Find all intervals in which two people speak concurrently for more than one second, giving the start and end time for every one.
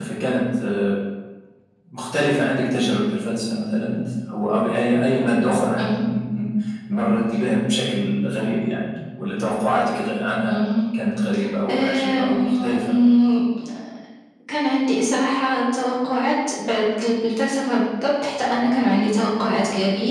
11.7-12.9

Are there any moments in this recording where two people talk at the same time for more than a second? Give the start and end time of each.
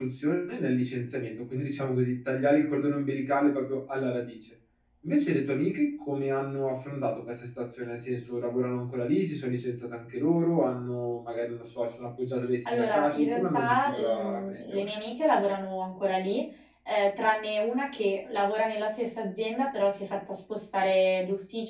12.7-14.8

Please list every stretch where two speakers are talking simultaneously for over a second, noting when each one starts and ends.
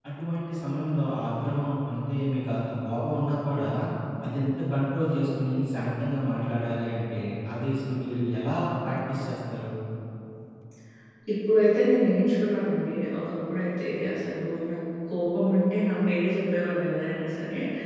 none

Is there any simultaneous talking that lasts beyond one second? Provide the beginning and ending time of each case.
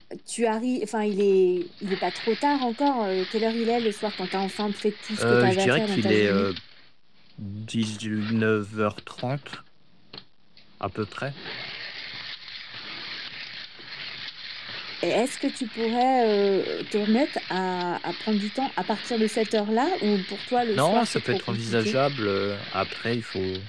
5.2-6.5, 20.8-22.0

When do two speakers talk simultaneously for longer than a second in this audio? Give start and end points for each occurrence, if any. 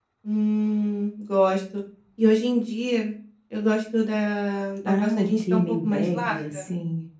4.9-6.7

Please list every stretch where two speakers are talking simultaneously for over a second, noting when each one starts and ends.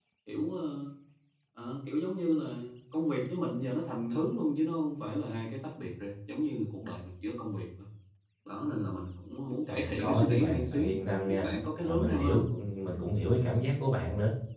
9.7-11.5

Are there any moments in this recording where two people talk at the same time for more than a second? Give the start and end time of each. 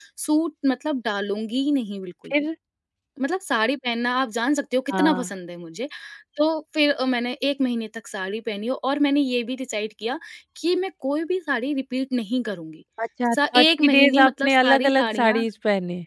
13.3-15.4

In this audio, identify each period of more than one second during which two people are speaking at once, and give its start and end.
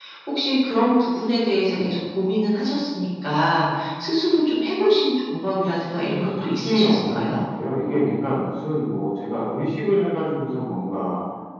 6.2-7.4

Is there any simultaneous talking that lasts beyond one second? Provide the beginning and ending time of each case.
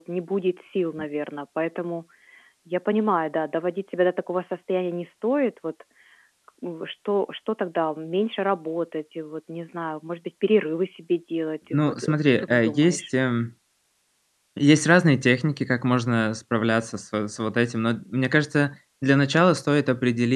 11.7-13.0

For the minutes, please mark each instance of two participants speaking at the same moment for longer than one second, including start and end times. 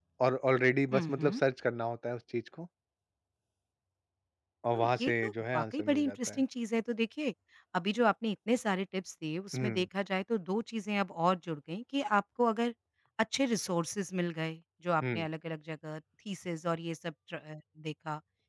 4.7-6.4

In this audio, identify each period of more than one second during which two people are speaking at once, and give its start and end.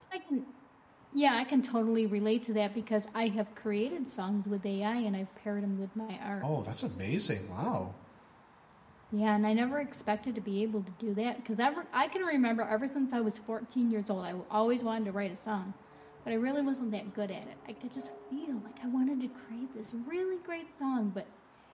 none

